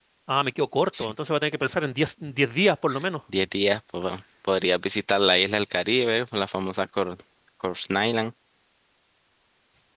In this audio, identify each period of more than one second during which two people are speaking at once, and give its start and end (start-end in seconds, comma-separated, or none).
none